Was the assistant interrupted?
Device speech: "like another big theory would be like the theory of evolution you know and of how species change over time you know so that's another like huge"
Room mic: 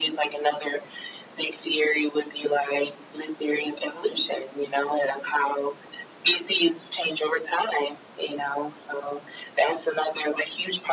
No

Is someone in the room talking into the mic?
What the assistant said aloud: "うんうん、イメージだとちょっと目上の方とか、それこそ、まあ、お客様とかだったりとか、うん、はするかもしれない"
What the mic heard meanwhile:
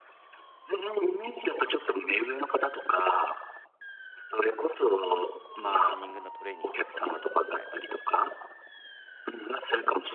Yes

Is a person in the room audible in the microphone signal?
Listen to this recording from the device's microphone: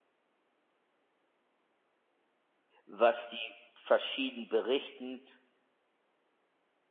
Yes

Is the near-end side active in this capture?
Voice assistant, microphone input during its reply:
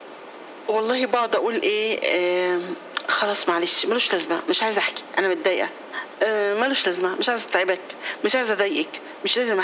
No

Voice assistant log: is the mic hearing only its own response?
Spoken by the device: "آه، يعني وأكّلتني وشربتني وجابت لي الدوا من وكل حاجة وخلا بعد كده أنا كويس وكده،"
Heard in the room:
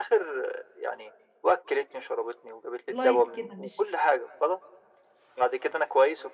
No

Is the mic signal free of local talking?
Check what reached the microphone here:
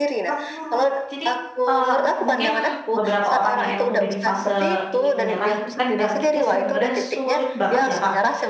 No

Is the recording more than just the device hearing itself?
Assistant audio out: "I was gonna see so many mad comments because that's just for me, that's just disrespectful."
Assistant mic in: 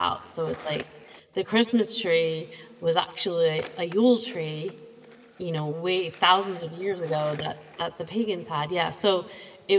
Yes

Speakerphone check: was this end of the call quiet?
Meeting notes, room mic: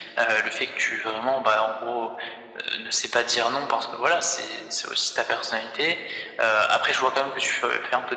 Yes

